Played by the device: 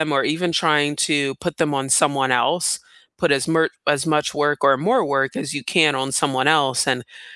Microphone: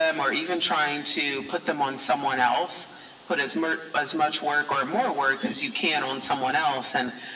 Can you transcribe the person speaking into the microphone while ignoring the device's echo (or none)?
none